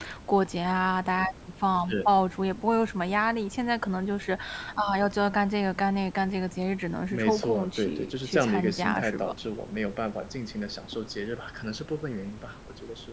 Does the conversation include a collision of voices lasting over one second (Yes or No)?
Yes